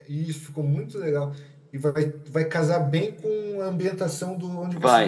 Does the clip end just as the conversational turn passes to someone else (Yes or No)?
No